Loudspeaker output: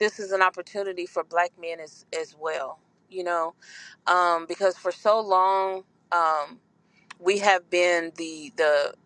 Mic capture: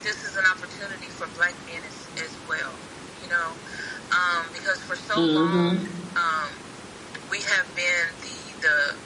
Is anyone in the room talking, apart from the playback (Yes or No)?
Yes